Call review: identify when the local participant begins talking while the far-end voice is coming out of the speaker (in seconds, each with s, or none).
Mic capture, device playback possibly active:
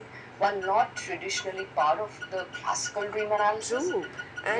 3.6 s